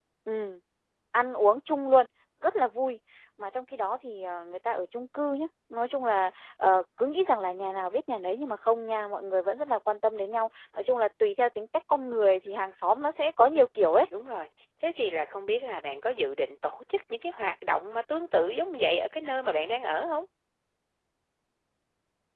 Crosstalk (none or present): none